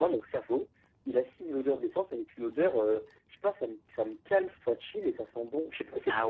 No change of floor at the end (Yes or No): Yes